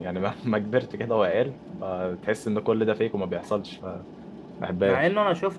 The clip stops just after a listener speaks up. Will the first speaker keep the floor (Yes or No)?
No